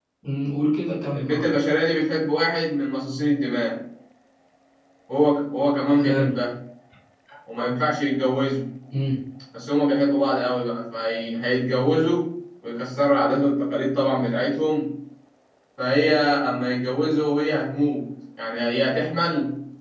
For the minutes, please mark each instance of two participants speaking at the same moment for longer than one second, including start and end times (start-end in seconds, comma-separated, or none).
none